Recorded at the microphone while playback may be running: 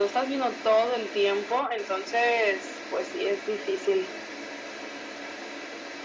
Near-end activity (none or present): none